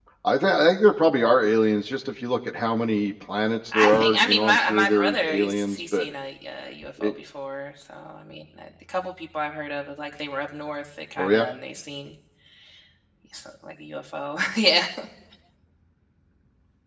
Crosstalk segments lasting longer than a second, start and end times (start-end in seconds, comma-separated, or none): 3.7-6.1